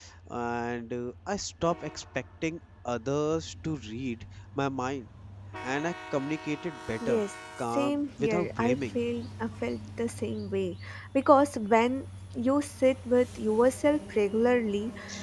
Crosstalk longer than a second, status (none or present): present